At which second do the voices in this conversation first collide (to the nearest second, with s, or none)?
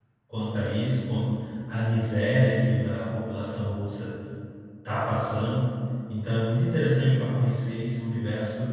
none